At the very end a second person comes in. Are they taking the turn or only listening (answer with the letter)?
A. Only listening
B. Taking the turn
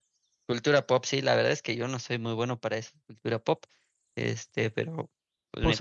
B